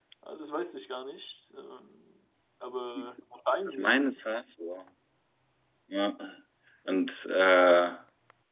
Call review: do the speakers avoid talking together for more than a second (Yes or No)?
Yes